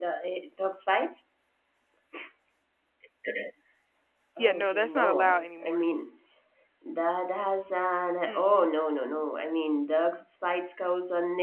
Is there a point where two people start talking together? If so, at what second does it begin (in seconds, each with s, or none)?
4.4 s